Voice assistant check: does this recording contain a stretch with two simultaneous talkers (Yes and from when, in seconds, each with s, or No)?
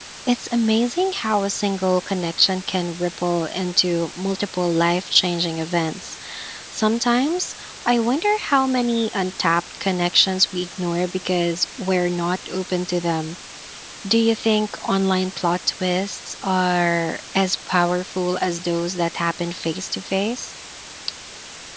No